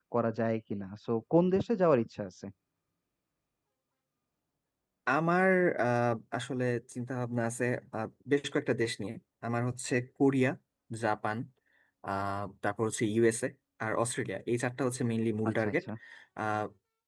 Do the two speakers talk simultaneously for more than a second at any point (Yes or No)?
No